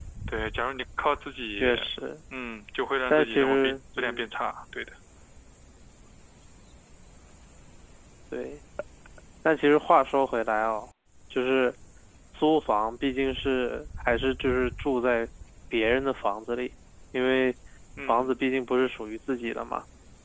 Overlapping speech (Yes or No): Yes